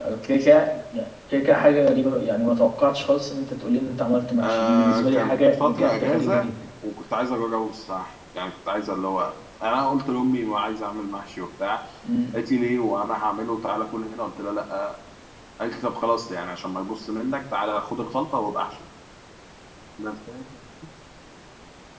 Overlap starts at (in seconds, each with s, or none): 4.4 s